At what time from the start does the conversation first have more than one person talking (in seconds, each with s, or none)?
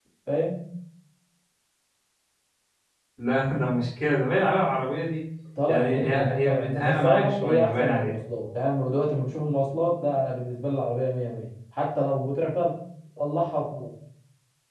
5.7 s